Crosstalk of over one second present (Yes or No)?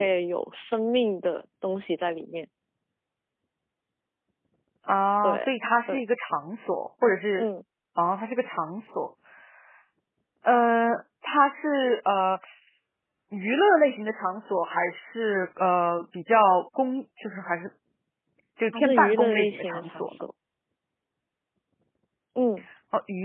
Yes